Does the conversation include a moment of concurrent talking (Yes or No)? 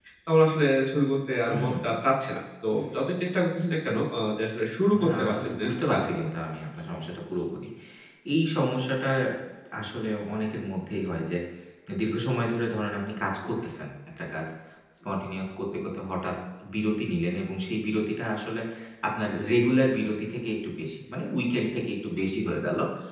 Yes